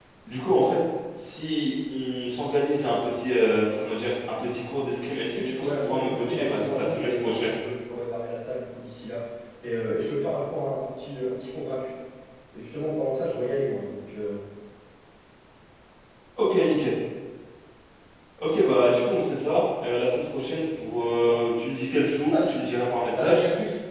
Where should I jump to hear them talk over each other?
5.2 s

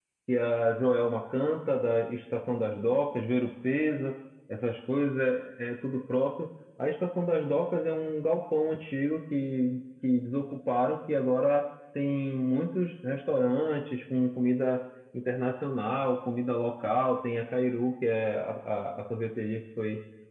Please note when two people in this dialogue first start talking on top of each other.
none

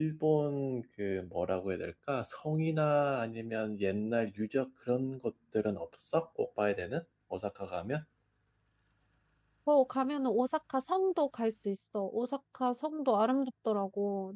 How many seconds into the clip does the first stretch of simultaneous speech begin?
none

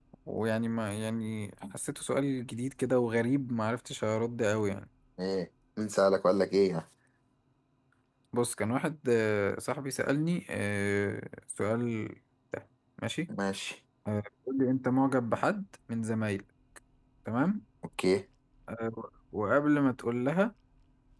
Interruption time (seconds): none

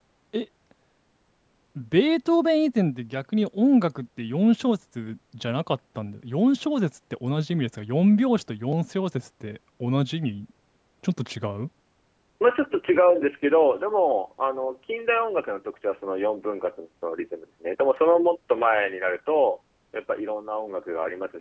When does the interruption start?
none

